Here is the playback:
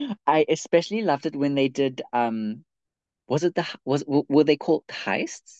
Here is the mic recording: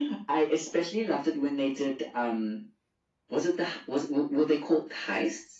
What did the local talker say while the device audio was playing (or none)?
none